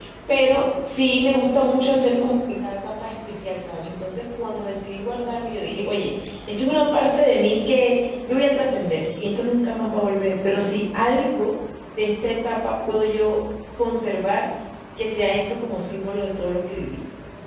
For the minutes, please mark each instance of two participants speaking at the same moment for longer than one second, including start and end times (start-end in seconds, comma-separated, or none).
none